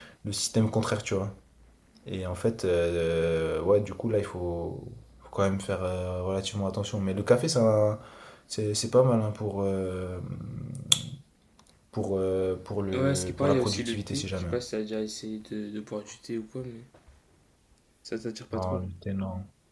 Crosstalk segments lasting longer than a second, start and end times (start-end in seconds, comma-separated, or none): 12.9-14.5